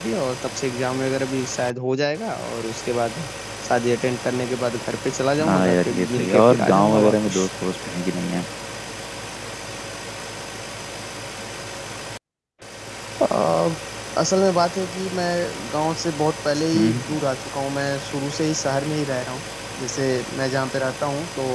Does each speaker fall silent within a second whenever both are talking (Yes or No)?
No